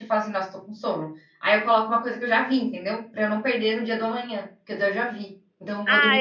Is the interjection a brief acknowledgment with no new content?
No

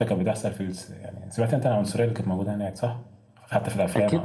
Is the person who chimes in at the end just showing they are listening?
No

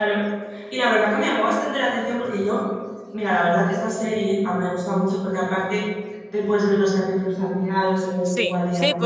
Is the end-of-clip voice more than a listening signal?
Yes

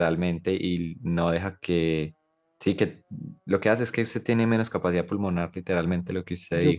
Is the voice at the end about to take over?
Yes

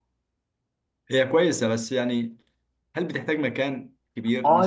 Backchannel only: No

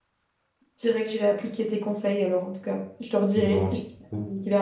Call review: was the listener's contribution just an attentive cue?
Yes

